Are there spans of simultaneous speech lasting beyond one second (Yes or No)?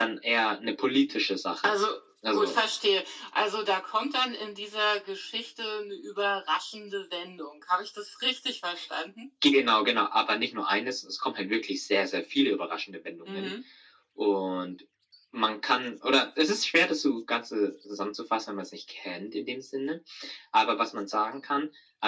No